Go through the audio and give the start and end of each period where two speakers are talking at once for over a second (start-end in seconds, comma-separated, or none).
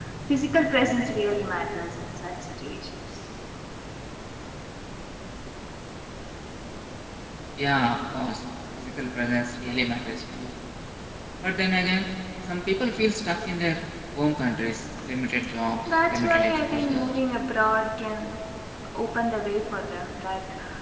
15.8-17.1